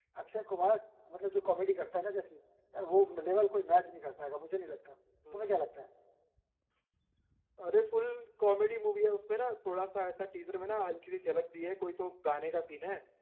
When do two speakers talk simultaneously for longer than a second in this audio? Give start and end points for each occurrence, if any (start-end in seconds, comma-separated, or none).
none